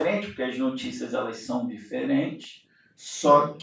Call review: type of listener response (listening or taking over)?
listening